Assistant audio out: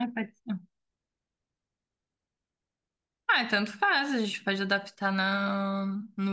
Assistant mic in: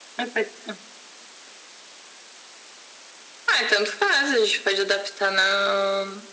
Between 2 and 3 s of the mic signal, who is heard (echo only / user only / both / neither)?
neither